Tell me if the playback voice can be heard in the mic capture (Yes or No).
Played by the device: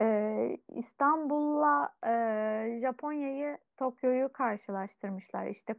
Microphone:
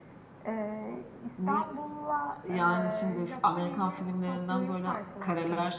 Yes